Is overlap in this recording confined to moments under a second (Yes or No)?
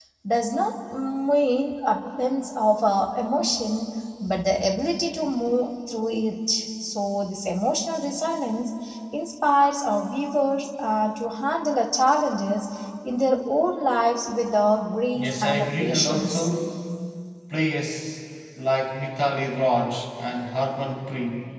No